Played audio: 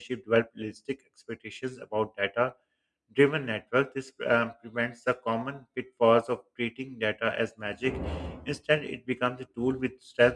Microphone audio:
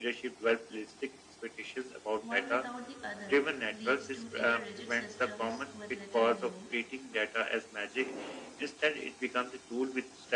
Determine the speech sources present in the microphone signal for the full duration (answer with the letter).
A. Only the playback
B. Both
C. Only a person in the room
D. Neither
B